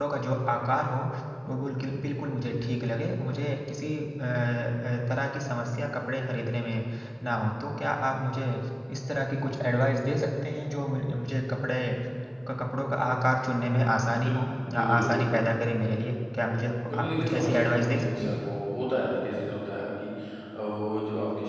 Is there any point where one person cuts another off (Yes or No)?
Yes